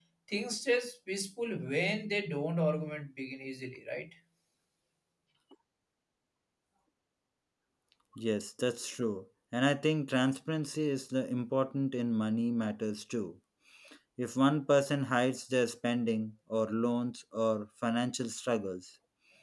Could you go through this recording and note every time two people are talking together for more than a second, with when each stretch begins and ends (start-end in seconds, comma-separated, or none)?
none